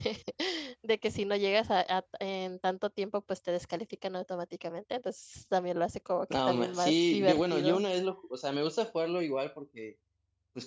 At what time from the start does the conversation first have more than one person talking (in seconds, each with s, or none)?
6.3 s